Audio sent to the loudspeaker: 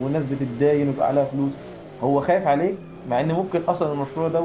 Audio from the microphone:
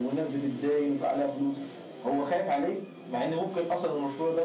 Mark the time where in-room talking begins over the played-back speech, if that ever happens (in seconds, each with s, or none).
none